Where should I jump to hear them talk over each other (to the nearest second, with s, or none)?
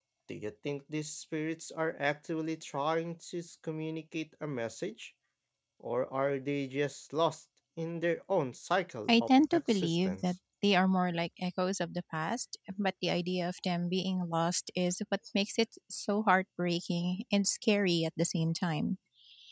9 s